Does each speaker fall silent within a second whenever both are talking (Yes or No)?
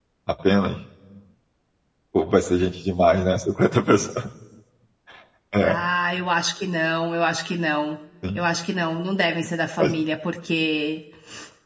Yes